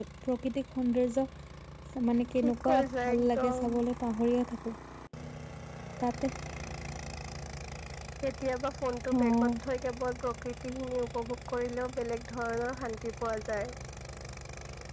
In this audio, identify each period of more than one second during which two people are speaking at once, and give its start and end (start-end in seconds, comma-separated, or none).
2.4-3.6